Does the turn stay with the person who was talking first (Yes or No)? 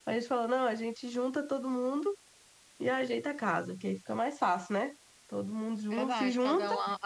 No